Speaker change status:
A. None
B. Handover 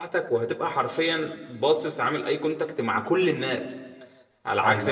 A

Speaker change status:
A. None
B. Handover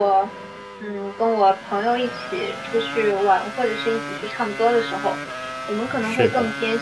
A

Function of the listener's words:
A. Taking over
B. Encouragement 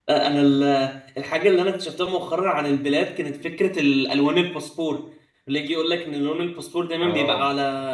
B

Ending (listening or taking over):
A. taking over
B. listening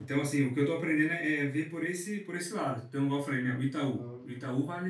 B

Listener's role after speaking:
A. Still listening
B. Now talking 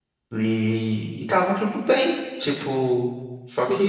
B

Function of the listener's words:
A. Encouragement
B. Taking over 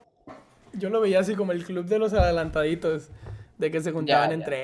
A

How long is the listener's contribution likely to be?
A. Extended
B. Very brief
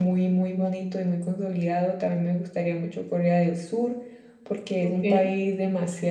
B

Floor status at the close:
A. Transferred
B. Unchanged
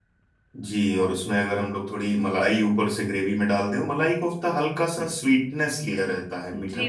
A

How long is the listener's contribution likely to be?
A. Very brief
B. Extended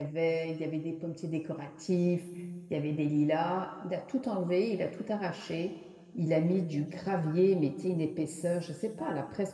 A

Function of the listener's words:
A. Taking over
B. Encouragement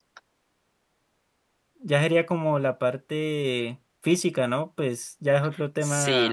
A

